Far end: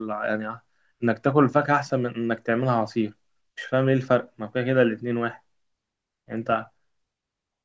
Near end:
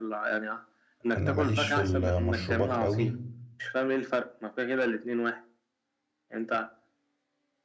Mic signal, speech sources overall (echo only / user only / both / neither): both